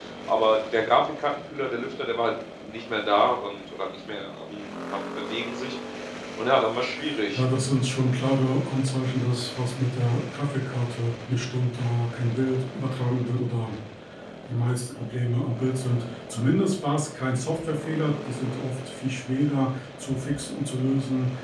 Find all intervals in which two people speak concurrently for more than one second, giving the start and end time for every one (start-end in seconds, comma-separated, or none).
none